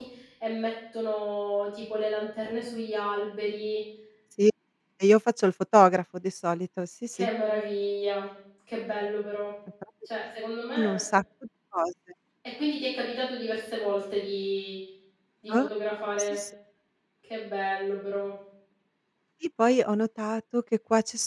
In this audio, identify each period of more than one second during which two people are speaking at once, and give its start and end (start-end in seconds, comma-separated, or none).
none